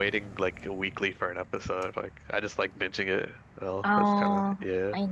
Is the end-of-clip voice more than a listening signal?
Yes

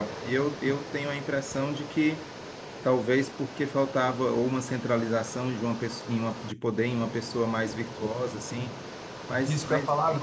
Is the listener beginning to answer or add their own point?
Yes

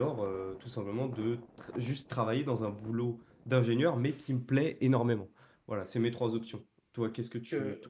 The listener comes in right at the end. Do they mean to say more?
Yes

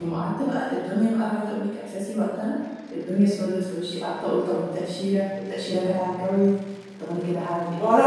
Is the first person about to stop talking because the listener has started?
Yes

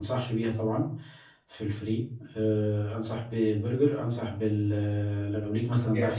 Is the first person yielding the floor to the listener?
Yes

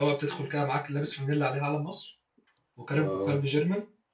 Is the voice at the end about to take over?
No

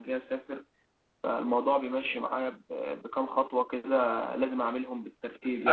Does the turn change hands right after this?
Yes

